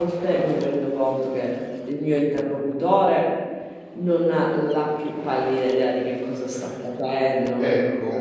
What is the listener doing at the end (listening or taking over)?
taking over